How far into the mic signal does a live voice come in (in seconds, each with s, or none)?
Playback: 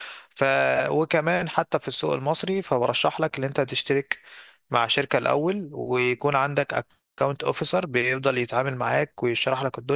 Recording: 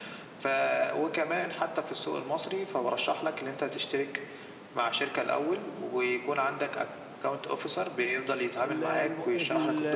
8.6 s